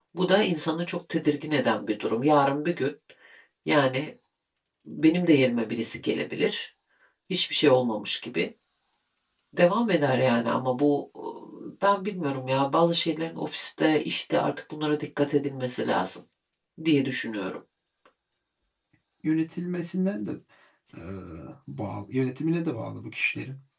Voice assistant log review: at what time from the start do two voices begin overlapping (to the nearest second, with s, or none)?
none